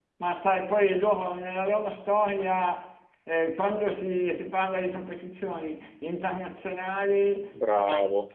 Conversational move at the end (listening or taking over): listening